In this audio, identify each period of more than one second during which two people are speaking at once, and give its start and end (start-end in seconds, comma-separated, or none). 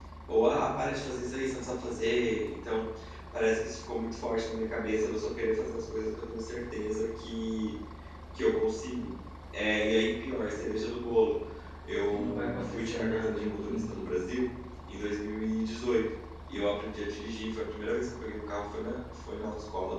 12.1-14.0